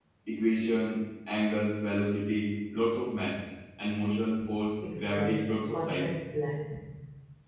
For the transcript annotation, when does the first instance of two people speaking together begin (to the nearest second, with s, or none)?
5 s